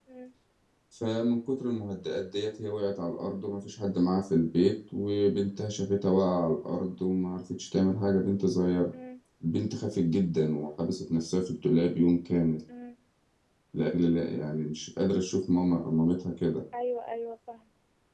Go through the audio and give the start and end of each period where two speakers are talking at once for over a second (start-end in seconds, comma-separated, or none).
none